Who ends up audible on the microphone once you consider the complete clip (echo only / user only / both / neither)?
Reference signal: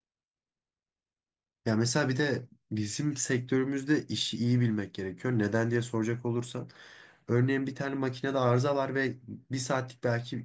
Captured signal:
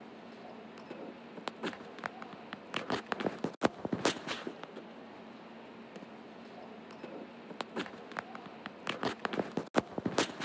neither